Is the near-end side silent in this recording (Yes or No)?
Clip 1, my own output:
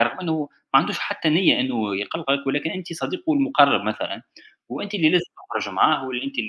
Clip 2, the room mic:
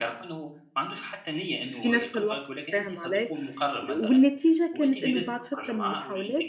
No